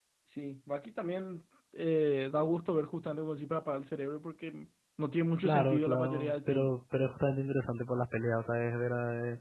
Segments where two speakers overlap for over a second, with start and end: 5.4-6.8

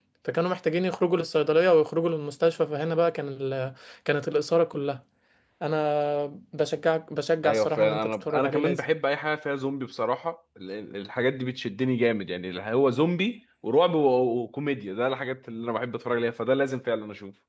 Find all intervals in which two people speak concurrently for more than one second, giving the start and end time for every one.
7.4-8.8

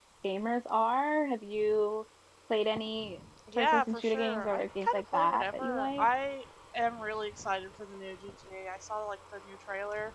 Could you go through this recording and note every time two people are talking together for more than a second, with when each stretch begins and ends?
3.6-6.1

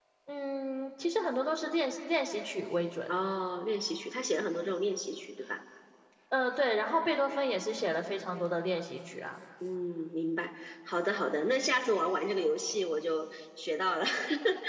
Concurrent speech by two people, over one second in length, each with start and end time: none

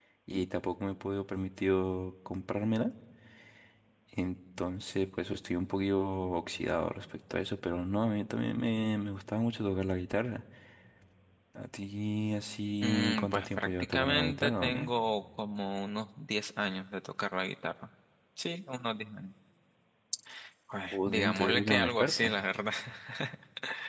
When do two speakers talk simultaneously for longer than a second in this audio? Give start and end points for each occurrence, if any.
12.8-14.9, 20.9-22.3

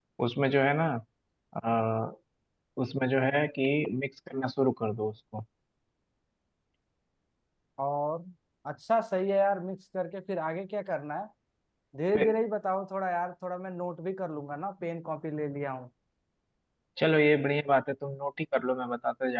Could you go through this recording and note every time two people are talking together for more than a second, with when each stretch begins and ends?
none

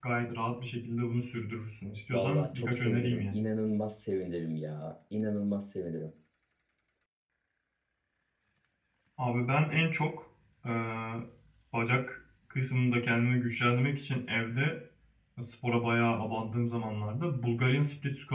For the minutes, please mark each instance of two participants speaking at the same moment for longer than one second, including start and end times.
2.1-3.4

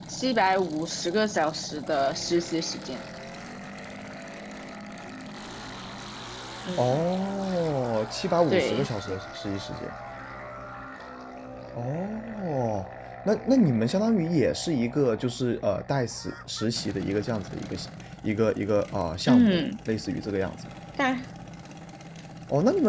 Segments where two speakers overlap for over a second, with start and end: none

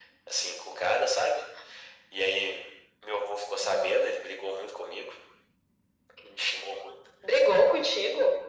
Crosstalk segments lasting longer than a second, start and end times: none

